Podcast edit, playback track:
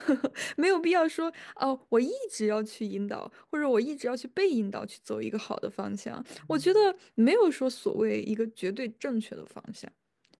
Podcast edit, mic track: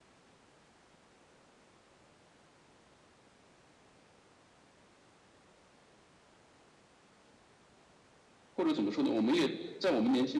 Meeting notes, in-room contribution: present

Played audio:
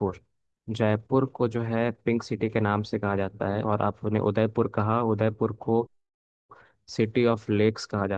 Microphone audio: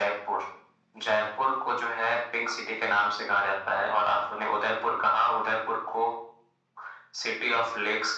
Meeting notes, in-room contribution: none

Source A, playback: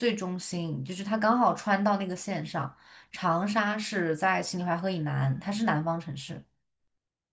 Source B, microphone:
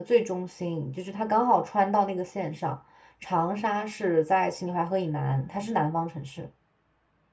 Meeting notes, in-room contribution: none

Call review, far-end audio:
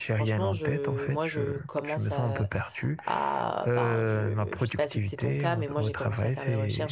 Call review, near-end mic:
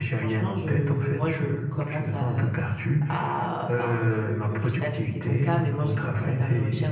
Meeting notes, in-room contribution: none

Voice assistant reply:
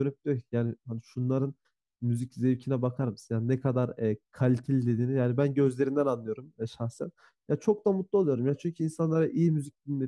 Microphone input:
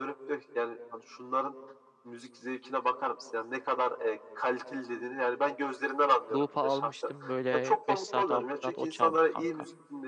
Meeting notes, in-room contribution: present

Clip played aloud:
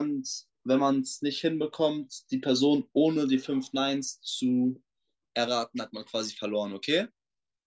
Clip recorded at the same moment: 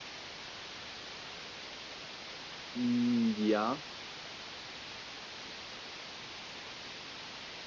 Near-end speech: present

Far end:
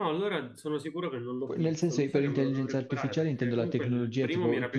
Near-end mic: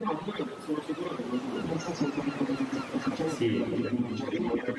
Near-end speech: present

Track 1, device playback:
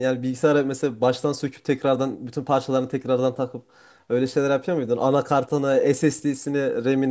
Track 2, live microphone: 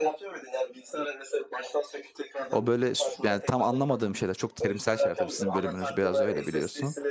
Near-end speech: present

